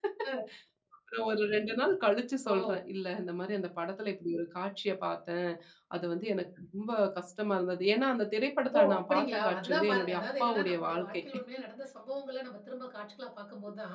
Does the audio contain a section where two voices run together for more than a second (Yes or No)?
Yes